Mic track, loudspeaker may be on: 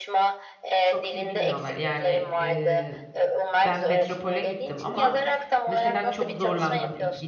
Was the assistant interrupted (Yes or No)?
Yes